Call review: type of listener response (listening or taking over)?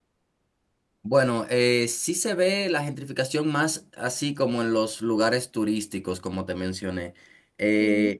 listening